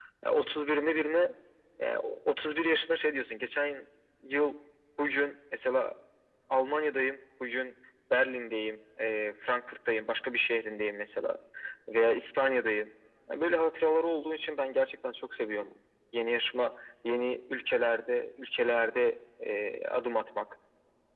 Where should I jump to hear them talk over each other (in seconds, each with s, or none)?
none